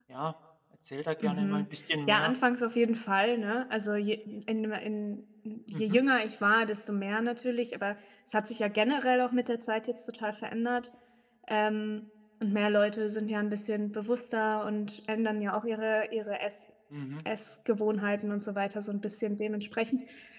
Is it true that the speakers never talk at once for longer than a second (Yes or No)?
Yes